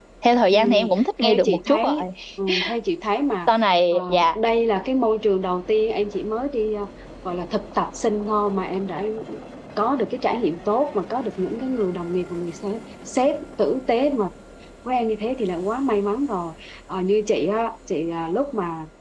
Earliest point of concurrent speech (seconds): 0.5 s

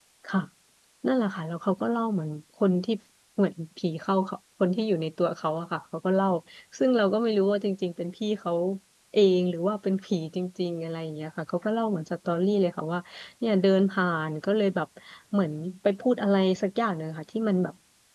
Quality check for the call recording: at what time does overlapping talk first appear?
none

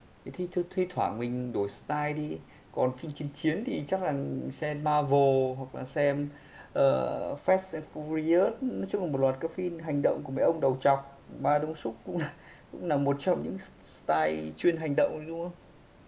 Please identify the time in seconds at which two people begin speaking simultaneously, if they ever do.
none

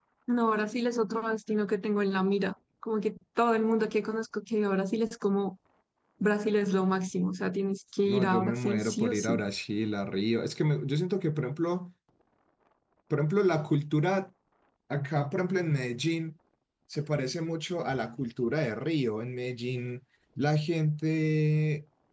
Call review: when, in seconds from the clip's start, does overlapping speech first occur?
8.1 s

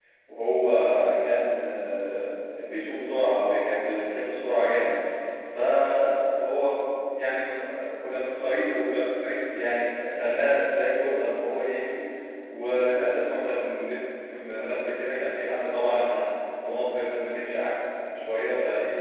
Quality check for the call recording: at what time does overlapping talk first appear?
none

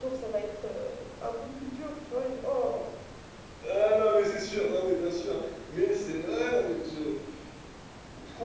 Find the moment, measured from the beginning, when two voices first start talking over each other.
none

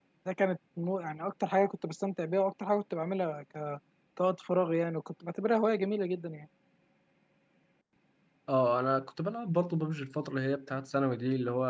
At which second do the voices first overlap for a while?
none

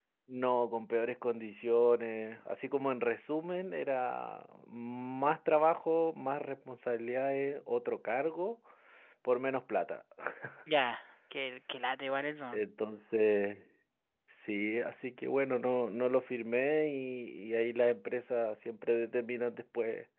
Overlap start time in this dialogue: none

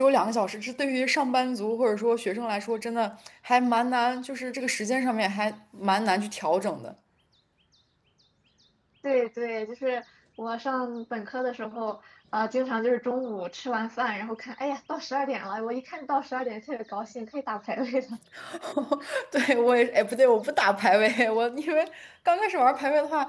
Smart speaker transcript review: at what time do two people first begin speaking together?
none

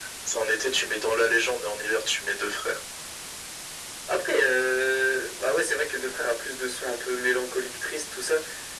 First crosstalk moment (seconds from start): none

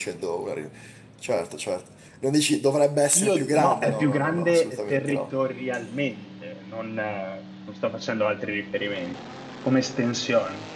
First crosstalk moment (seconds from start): 3.1 s

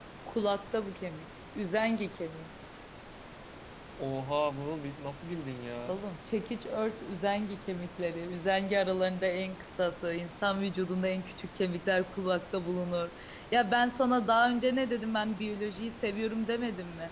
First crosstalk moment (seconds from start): none

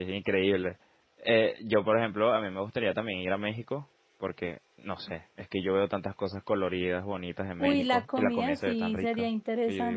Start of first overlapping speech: 7.6 s

